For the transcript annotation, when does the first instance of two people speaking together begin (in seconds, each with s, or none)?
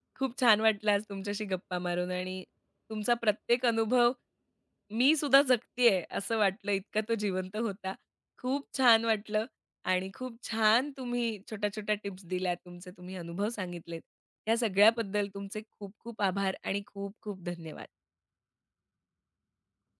none